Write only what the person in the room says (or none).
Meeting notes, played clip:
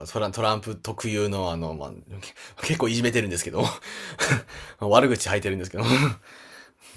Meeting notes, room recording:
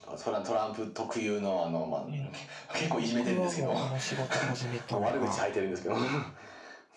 はい。僕はもうこの仕事始めたのが